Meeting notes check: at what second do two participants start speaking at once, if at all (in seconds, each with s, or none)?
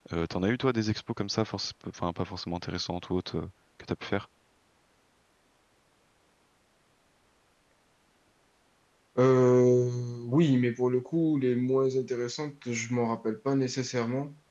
none